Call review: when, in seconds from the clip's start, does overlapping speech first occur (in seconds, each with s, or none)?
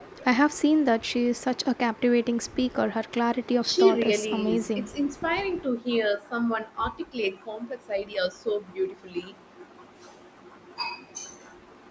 3.6 s